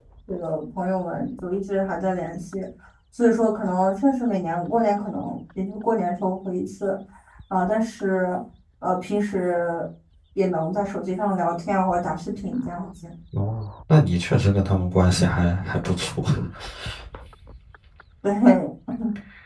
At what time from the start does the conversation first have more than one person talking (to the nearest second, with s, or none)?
none